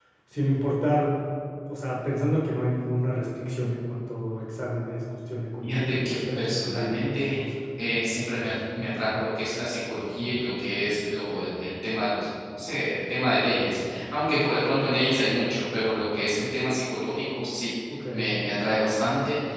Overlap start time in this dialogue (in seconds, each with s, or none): 5.6 s